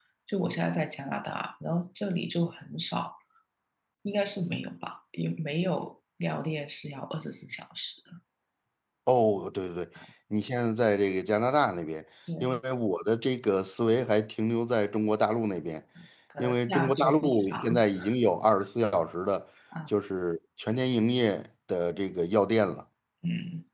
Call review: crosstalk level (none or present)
present